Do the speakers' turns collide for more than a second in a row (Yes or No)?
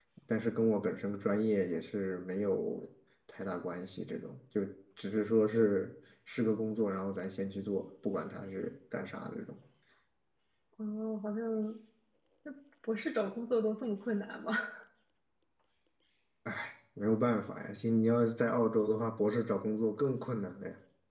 No